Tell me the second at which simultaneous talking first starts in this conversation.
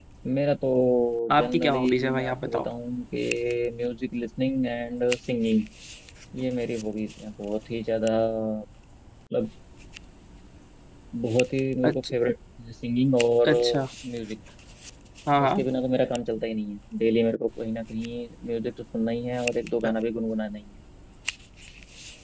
1 s

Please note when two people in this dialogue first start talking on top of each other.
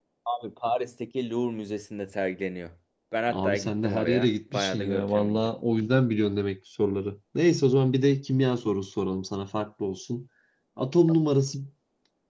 3 s

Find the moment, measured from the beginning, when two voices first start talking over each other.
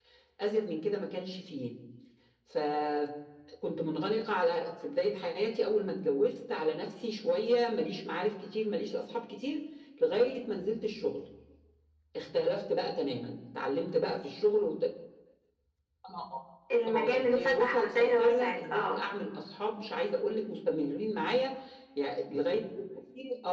17 s

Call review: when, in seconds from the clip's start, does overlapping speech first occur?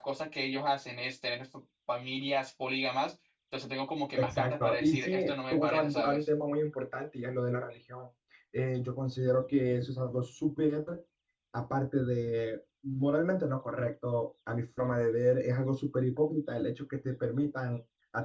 4 s

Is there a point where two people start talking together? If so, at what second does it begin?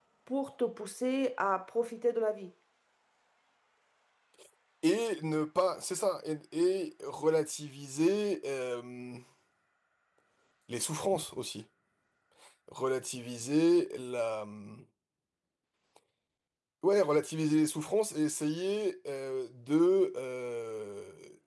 none

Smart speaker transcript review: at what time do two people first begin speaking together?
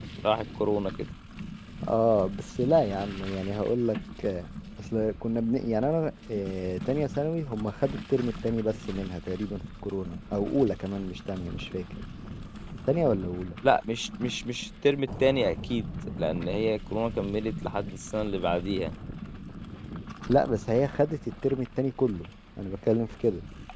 none

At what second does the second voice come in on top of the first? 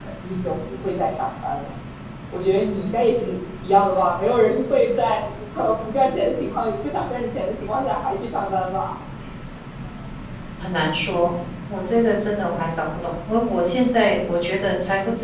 none

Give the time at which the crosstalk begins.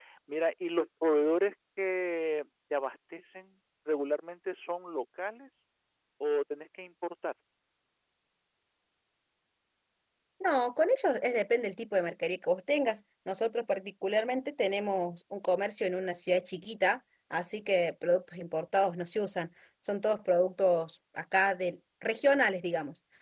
none

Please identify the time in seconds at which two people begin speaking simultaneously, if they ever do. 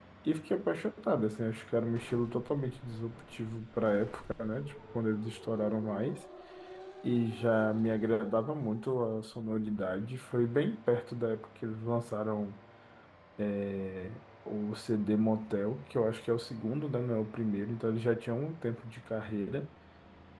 none

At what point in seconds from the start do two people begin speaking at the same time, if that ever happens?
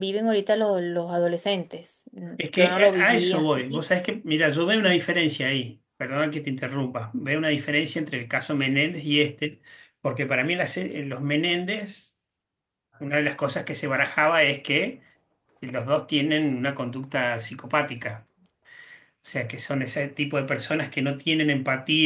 2 s

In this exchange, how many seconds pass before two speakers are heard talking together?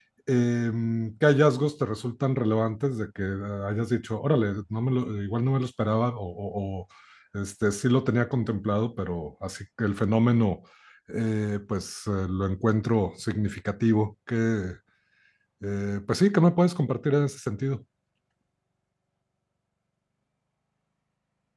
none

